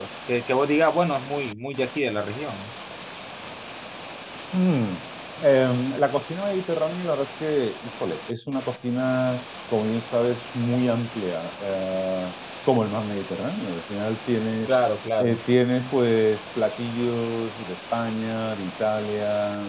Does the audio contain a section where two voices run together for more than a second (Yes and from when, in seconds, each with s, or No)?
No